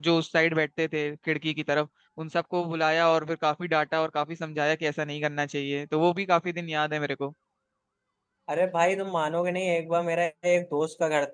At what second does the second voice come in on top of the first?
none

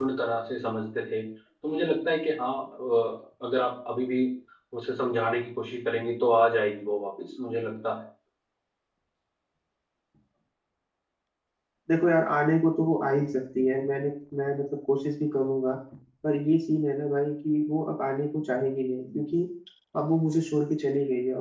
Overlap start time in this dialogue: none

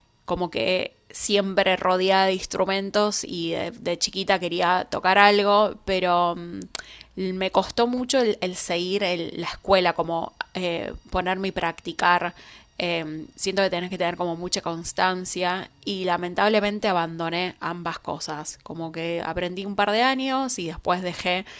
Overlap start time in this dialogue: none

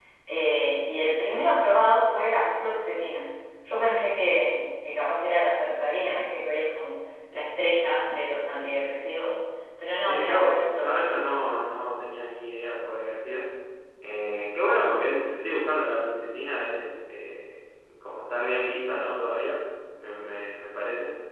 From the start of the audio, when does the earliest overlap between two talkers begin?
10.1 s

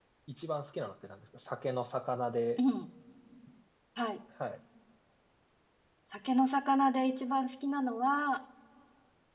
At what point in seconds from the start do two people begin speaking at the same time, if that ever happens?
none

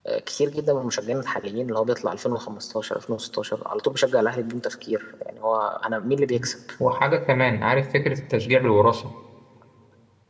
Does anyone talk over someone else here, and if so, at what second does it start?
none

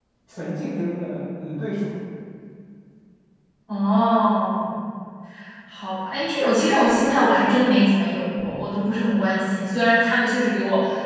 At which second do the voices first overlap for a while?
none

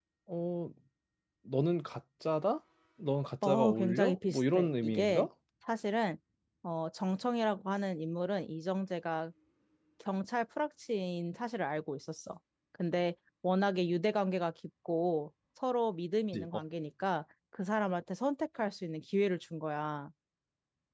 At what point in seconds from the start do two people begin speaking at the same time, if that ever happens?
3.4 s

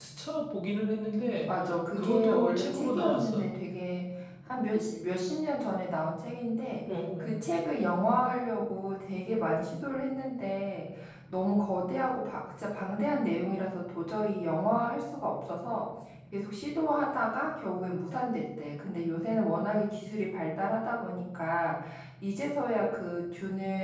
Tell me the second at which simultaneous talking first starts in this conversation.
2.0 s

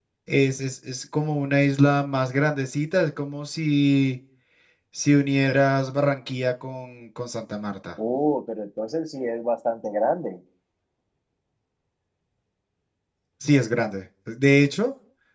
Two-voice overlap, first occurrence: none

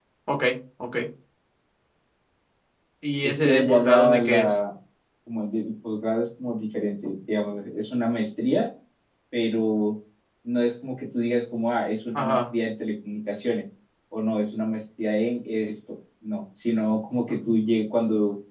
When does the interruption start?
3.2 s

